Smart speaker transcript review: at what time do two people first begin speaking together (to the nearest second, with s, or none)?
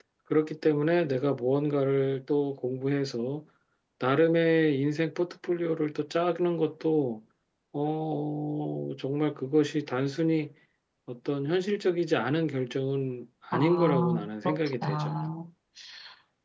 14 s